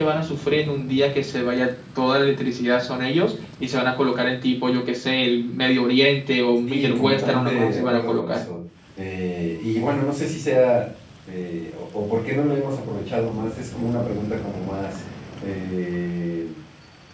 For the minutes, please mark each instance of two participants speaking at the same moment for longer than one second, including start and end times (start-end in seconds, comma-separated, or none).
6.7-8.4